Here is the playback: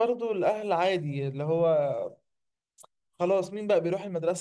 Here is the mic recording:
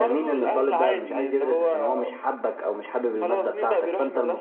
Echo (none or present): present